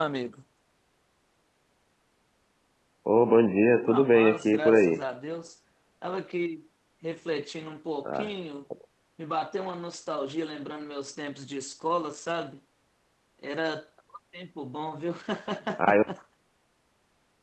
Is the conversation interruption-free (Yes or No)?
No